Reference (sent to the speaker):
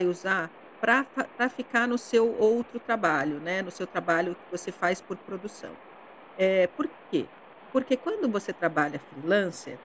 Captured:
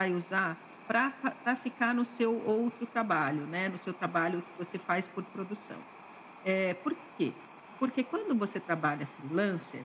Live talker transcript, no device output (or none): none